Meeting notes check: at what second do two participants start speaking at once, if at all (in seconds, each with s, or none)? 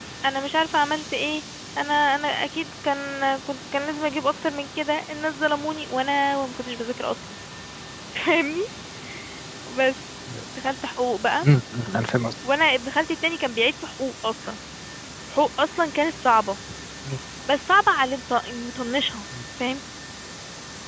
none